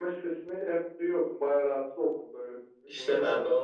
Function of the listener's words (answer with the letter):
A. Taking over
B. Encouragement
A